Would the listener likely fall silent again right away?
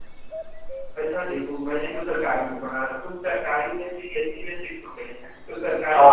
Yes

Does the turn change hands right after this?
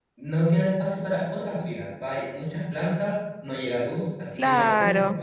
Yes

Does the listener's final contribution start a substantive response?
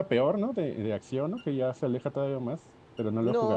Yes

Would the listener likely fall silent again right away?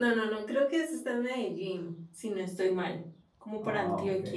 Yes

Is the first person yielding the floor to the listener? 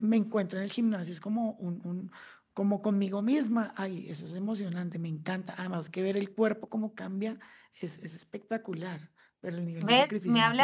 Yes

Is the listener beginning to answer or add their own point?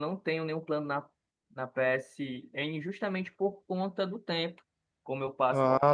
No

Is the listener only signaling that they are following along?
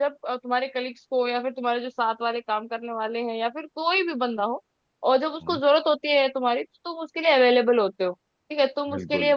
Yes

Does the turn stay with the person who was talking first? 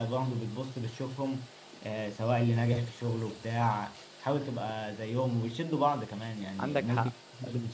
Yes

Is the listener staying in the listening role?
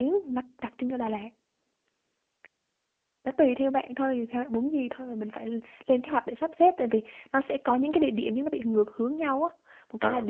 Yes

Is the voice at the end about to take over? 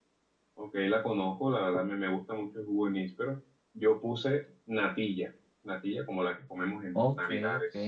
Yes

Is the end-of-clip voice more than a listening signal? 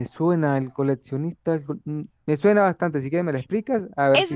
Yes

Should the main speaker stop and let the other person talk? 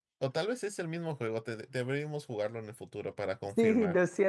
Yes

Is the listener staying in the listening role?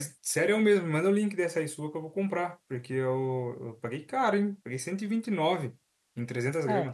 No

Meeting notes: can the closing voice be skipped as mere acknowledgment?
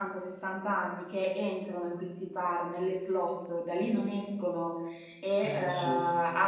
Yes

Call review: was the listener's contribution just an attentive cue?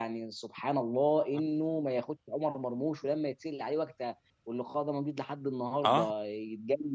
Yes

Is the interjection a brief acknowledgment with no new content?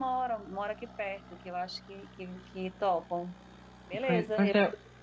No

